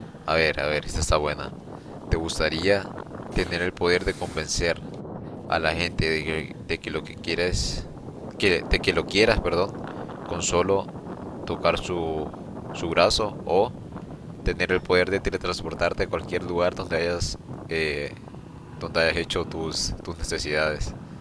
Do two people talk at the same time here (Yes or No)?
No